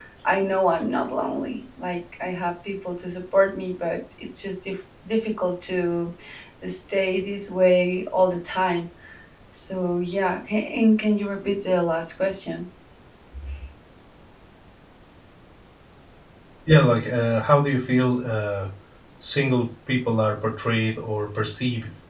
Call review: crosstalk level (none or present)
none